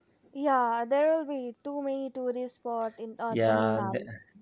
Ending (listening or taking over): taking over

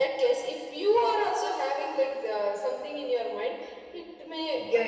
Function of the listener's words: taking over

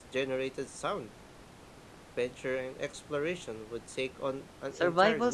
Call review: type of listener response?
taking over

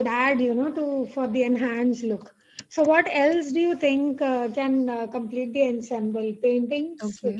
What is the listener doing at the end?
taking over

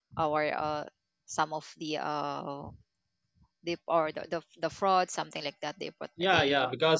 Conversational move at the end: taking over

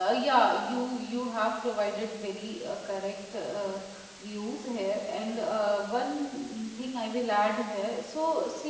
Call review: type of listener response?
listening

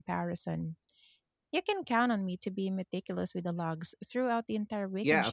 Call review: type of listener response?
taking over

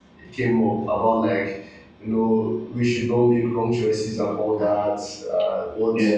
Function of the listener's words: listening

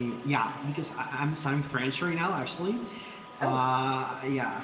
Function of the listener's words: listening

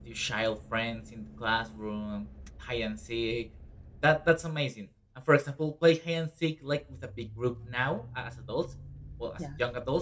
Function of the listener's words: listening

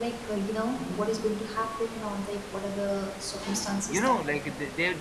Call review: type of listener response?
taking over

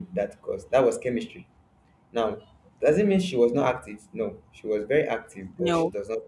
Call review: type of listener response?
listening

